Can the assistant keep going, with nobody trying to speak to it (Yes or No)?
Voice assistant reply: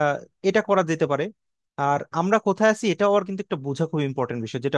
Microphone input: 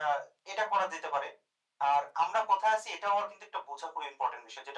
Yes